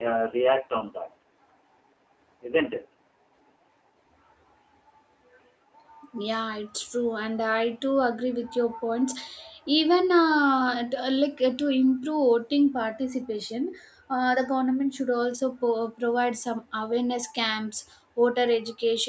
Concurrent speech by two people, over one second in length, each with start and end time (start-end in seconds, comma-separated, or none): none